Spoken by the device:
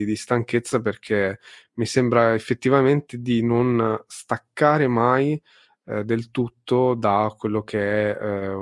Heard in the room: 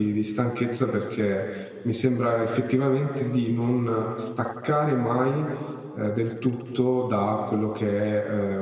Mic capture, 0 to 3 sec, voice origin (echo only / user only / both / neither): echo only